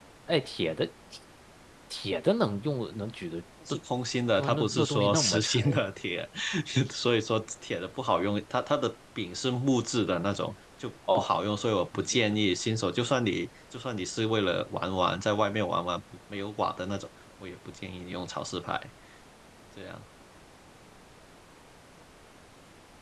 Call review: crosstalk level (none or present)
present